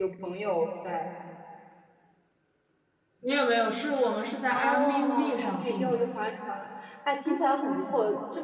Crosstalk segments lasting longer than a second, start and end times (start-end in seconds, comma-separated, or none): 4.5-6.0